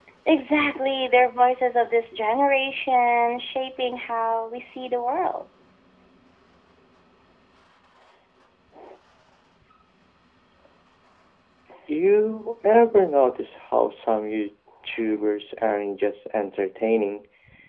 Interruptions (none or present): none